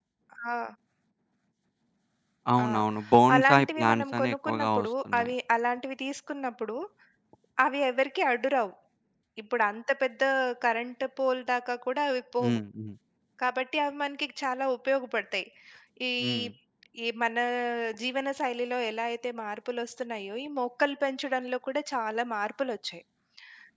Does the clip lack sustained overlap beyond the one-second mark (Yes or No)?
No